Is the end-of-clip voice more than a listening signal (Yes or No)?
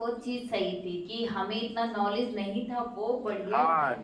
Yes